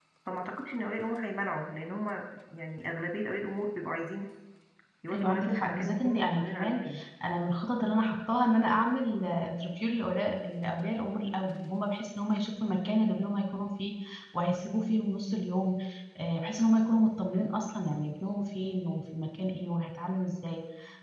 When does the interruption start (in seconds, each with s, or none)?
5.1 s